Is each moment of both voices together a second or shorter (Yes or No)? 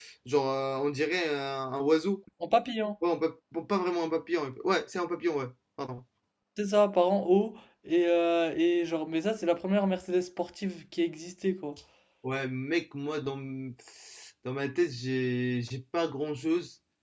Yes